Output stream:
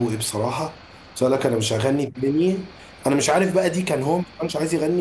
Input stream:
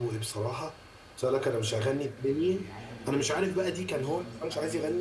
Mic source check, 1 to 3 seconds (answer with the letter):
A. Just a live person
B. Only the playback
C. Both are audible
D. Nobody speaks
C